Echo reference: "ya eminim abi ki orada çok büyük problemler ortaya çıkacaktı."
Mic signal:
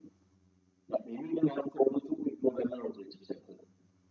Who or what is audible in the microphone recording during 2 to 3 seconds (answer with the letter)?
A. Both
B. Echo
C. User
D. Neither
B